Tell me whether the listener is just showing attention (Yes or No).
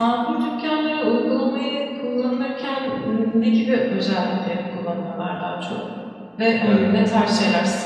Yes